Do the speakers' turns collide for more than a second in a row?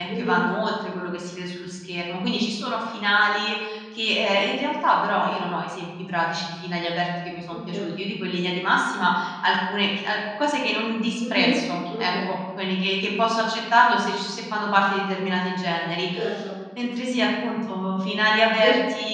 No

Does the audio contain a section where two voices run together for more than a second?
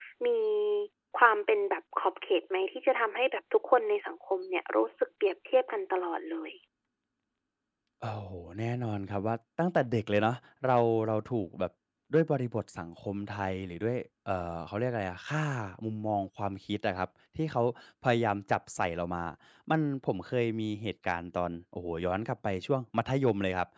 No

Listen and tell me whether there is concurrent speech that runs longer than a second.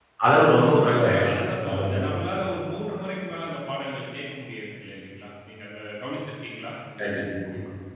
Yes, from 0.6 s

